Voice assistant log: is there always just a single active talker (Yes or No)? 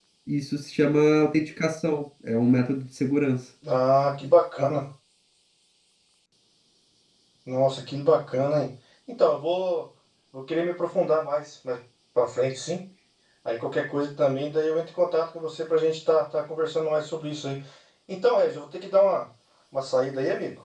Yes